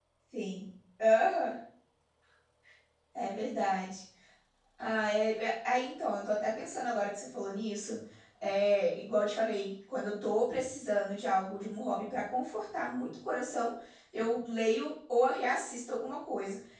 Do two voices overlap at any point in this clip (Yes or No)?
No